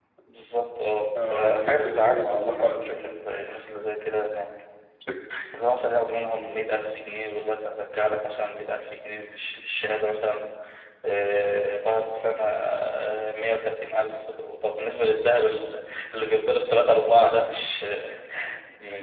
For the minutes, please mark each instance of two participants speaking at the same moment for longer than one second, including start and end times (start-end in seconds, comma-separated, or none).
1.3-3.0